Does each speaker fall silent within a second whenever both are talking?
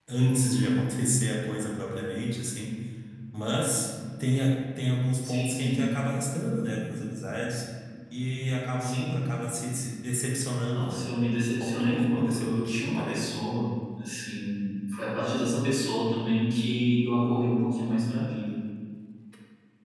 No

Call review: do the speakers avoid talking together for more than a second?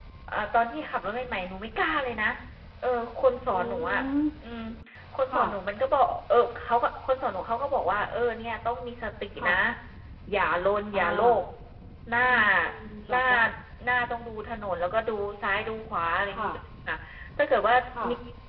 Yes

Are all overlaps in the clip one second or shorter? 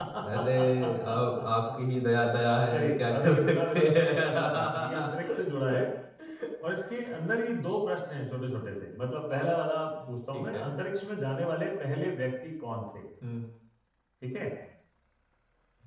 No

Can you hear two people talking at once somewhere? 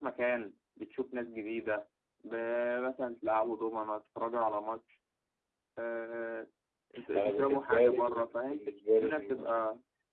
Yes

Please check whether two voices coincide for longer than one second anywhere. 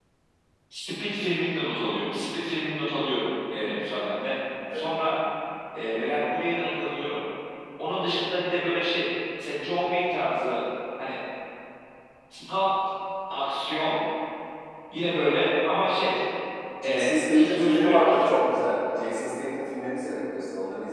Yes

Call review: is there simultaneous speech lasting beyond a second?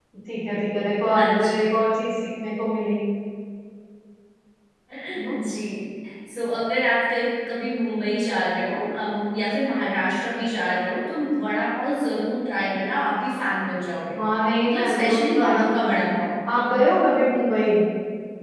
Yes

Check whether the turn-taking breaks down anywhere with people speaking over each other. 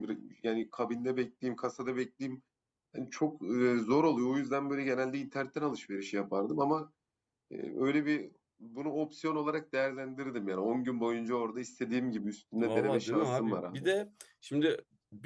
Yes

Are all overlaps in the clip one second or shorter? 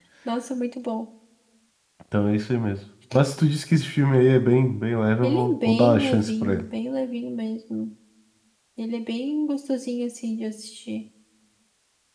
No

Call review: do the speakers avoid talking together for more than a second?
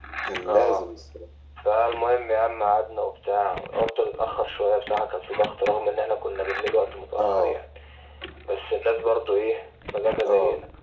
Yes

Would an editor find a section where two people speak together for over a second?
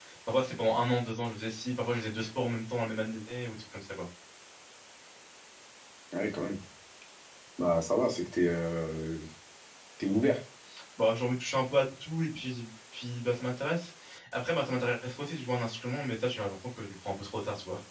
No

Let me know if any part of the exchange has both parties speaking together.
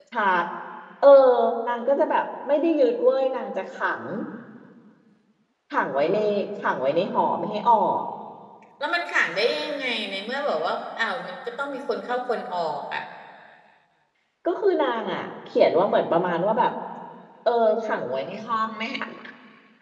No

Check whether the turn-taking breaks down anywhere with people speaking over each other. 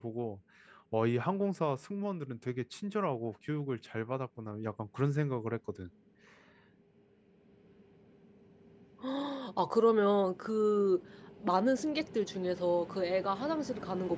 No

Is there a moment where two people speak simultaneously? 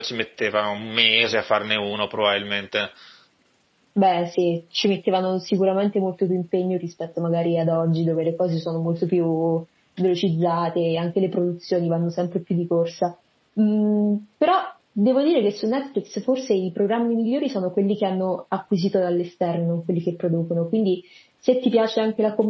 No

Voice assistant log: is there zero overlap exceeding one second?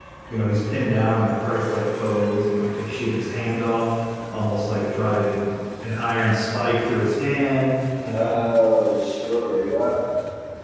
Yes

